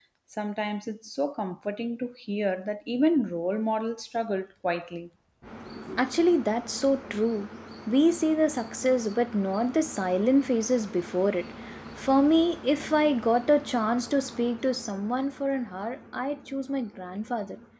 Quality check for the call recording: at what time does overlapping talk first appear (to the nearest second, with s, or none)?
none